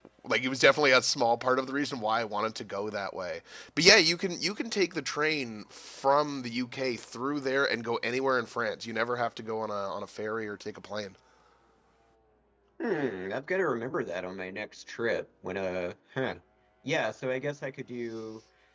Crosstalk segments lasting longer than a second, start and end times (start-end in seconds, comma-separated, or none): none